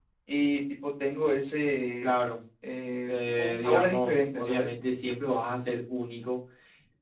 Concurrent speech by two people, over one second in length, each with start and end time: 3.0-4.7

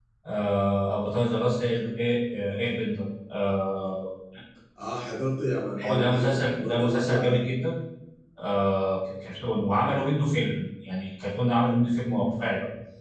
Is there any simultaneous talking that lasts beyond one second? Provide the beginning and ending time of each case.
5.8-7.4

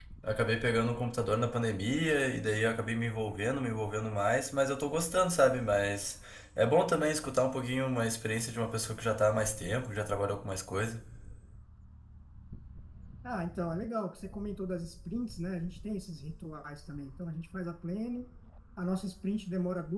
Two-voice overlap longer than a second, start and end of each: none

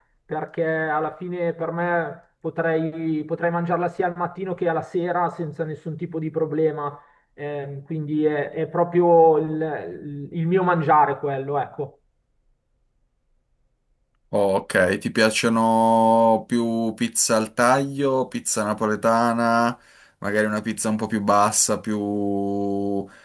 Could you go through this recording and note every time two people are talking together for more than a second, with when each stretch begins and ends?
none

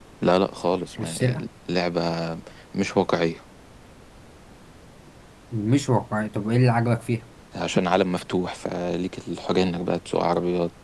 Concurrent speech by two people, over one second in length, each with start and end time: none

